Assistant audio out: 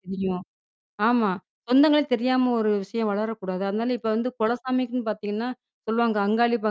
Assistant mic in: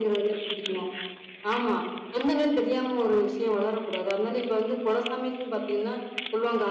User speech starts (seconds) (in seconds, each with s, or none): none